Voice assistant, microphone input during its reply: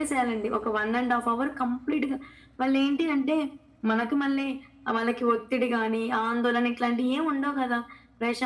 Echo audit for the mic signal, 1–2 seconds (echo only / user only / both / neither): echo only